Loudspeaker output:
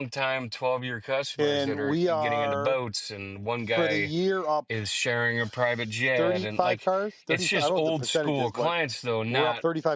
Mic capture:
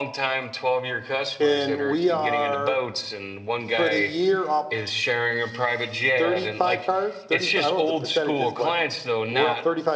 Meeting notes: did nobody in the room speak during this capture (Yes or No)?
Yes